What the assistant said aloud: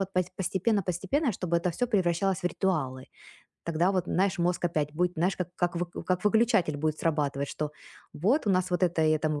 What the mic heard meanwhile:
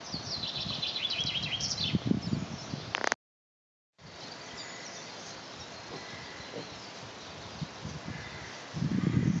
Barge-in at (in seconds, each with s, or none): none